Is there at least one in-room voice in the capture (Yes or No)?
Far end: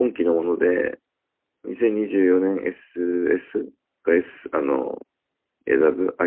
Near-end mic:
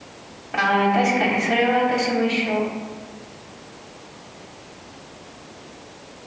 Yes